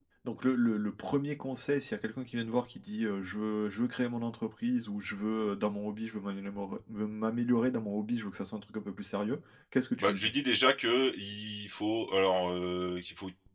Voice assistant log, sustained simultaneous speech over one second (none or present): none